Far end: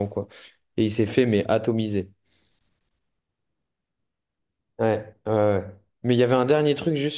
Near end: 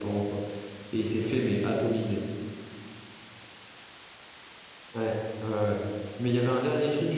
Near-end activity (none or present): none